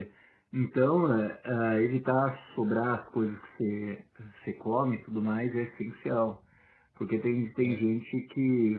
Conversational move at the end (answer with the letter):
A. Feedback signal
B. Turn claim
A